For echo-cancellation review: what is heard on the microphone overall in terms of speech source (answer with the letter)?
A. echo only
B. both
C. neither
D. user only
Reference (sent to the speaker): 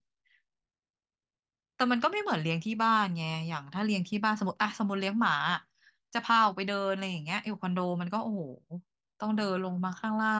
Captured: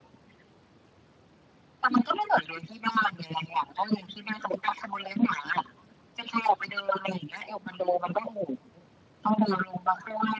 A